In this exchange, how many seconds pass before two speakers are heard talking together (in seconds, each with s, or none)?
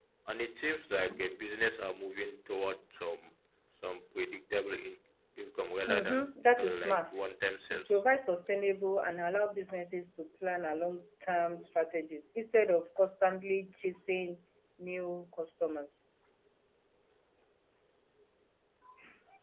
5.9 s